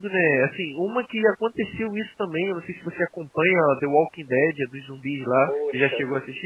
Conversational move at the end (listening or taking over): taking over